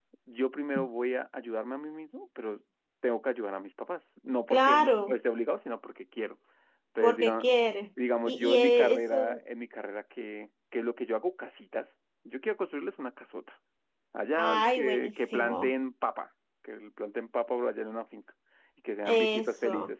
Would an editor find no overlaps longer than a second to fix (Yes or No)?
No